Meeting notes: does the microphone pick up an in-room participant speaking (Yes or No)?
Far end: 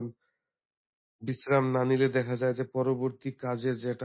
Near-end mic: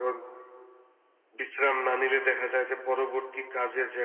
No